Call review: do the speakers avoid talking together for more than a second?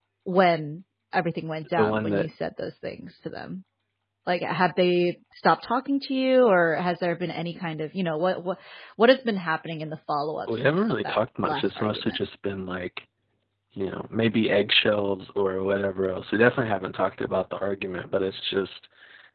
No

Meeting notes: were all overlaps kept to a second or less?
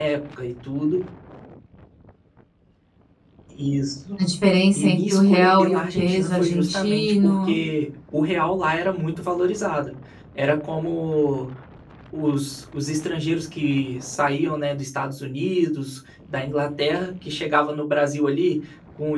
No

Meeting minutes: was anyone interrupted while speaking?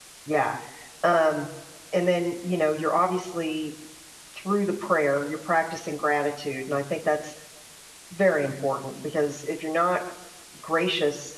No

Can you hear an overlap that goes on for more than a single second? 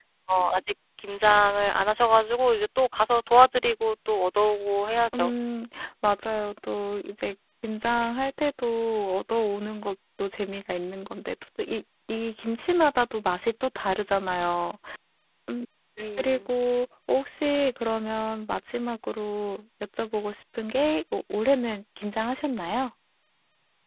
No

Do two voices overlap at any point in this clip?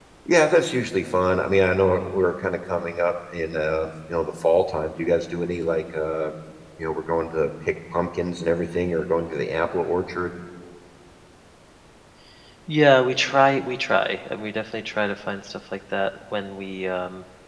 No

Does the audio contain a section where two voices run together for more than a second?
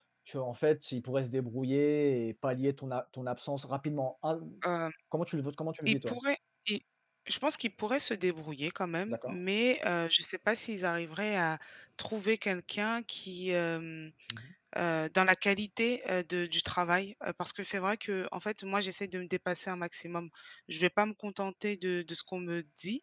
No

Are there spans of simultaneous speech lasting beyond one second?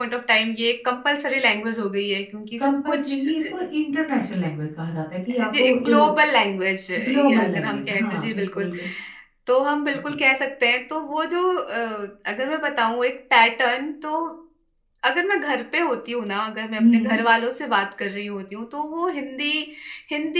Yes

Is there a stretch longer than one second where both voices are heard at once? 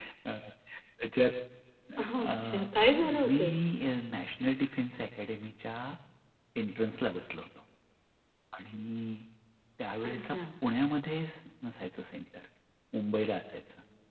No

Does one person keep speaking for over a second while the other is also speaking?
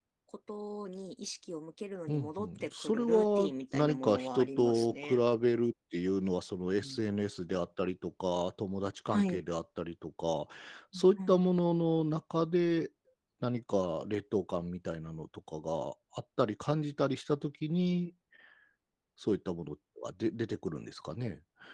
Yes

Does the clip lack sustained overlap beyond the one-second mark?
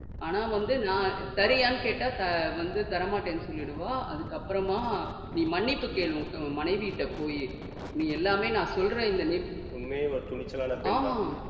Yes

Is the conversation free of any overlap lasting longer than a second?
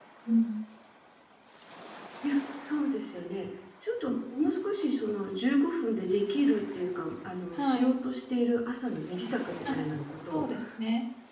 Yes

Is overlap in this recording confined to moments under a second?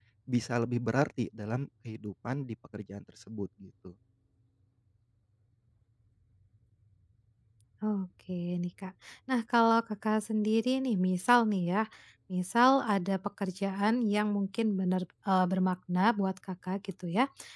Yes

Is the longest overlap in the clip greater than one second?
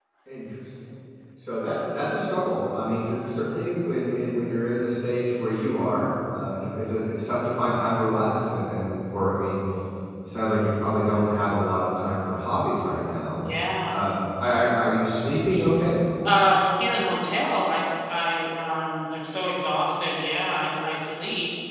No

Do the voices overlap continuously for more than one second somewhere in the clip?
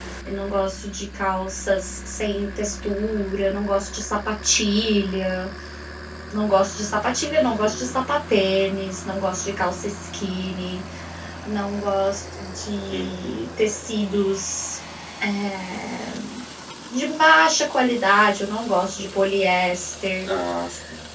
No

